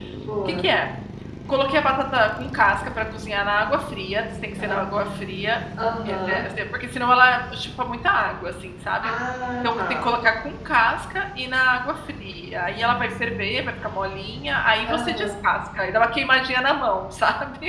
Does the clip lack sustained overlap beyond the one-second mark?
Yes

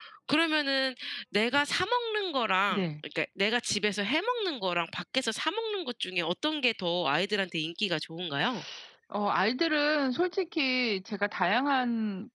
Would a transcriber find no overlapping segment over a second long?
Yes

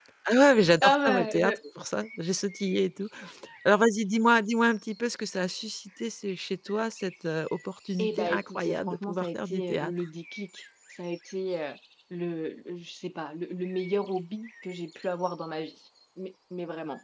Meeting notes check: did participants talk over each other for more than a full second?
Yes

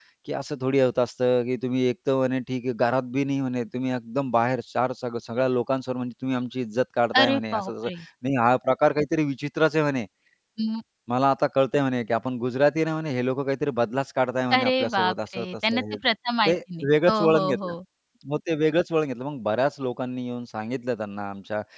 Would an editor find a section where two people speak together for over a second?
Yes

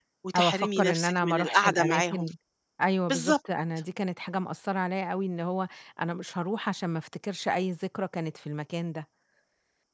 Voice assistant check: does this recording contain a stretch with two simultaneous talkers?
Yes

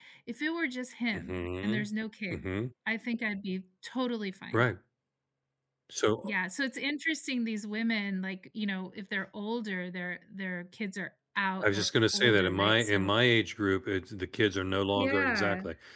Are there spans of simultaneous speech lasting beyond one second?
Yes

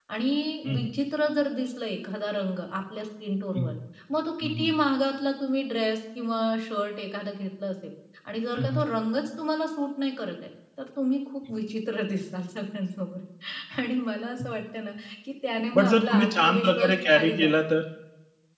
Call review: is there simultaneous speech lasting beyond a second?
Yes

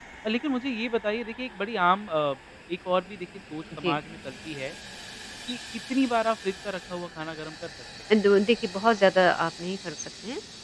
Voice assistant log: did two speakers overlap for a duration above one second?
No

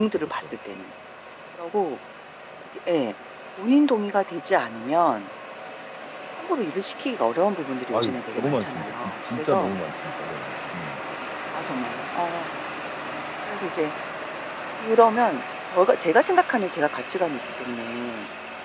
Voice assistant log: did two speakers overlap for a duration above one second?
Yes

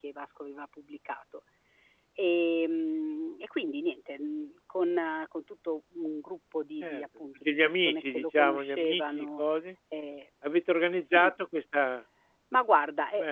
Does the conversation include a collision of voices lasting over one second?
Yes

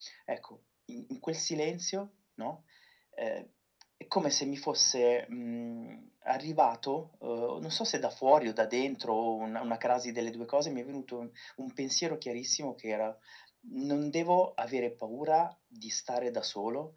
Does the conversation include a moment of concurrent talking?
No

